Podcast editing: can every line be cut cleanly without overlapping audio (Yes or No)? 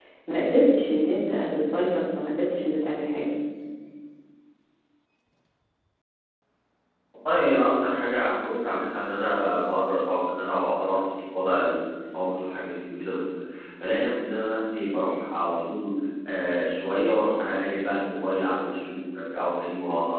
Yes